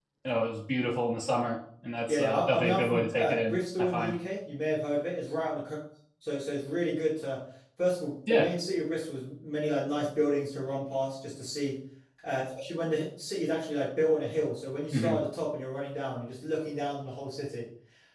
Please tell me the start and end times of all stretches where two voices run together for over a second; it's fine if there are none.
2.1-4.1

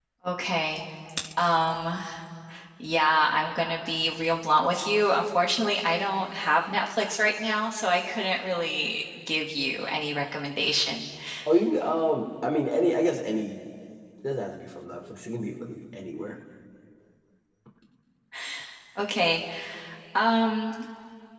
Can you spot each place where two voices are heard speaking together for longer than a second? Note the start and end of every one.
none

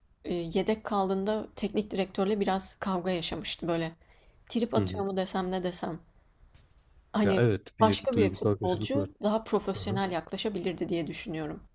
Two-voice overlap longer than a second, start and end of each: 7.8-9.1

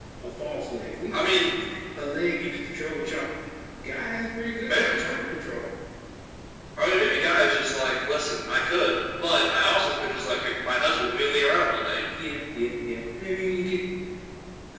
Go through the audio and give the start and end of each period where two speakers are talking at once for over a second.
none

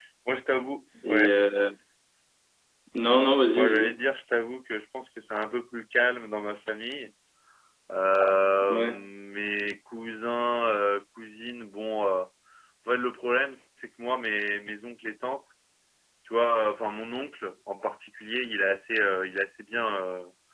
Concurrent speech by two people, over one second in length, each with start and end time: none

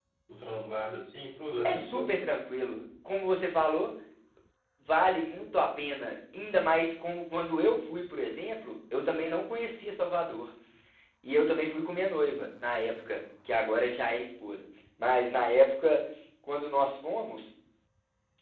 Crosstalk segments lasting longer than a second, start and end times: none

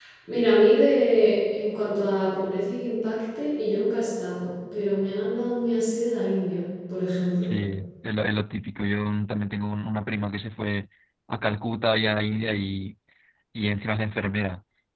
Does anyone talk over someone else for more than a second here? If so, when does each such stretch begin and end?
none

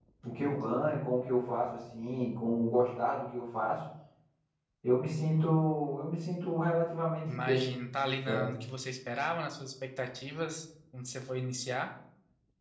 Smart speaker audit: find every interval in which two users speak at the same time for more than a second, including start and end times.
none

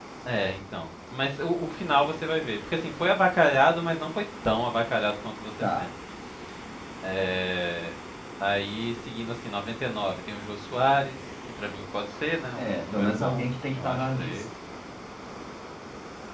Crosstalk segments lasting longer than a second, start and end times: 12.6-14.4

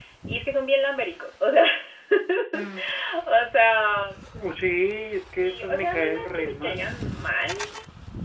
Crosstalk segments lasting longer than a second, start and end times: 5.4-6.9

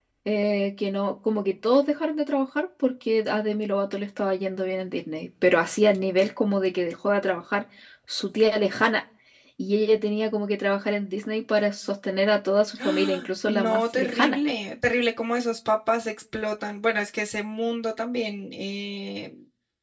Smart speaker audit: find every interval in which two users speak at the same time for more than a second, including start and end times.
12.8-14.4

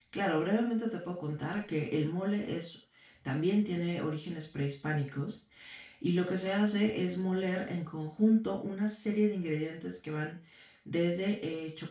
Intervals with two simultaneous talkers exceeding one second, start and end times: none

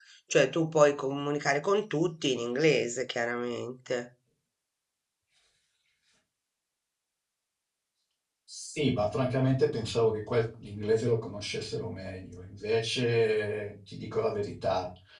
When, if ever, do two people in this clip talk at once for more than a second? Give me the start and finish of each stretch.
none

